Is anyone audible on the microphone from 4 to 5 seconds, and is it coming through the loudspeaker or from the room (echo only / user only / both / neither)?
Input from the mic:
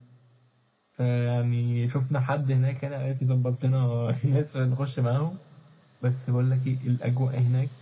echo only